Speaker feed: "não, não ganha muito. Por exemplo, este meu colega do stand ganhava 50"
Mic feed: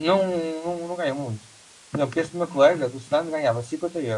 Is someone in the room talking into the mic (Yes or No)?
No